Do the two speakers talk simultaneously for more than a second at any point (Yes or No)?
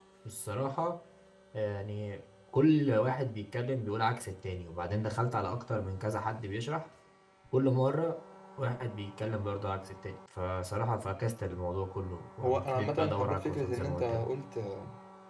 Yes